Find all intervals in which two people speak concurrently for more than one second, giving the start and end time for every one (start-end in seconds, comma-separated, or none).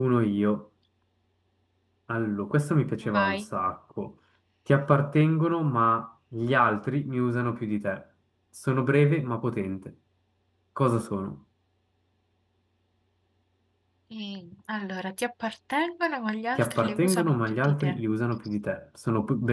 16.6-18.0